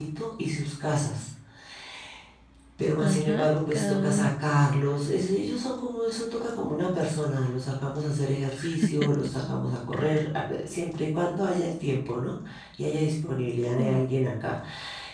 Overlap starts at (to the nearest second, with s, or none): 3 s